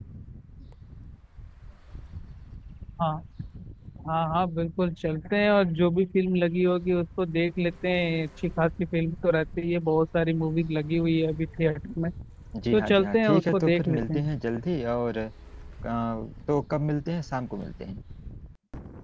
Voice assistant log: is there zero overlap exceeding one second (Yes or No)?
No